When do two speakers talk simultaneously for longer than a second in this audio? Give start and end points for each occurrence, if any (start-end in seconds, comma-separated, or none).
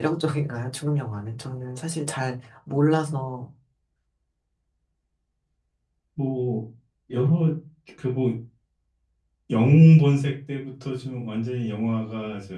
none